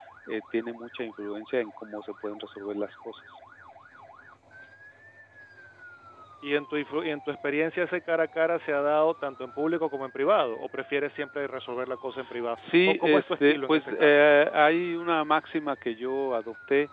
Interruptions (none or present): present